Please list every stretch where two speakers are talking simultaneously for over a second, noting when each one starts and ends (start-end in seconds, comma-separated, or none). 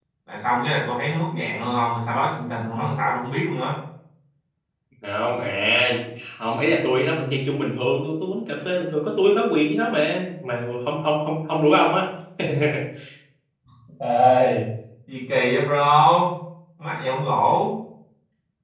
none